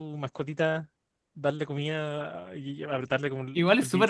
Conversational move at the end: taking over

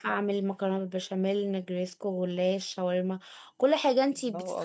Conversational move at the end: taking over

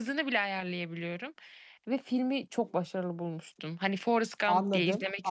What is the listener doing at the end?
taking over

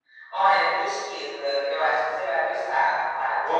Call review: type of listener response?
listening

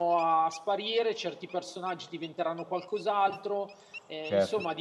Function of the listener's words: taking over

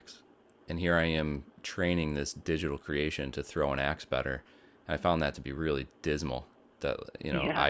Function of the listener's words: listening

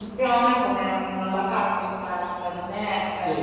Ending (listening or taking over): taking over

